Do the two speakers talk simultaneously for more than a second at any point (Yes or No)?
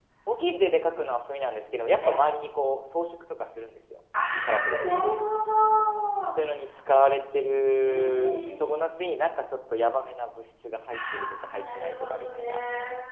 Yes